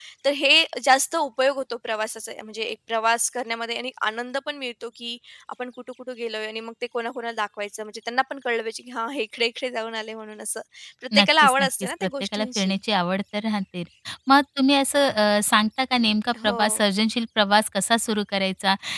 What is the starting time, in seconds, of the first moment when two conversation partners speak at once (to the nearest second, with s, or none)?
11 s